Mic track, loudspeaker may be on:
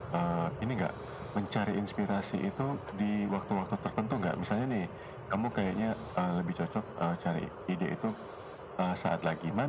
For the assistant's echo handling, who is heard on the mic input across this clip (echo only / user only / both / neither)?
echo only